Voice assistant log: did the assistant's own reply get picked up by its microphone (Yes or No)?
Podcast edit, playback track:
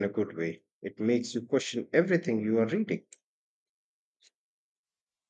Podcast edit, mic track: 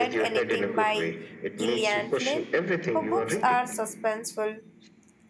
Yes